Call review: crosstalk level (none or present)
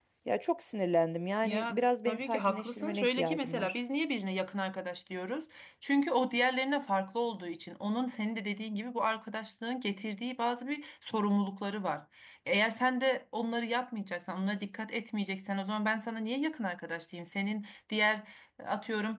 present